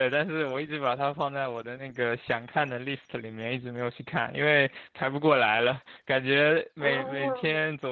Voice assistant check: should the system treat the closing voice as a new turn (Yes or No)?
No